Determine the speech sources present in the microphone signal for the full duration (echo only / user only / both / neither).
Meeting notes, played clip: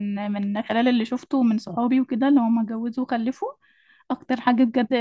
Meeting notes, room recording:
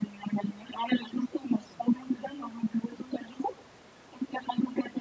echo only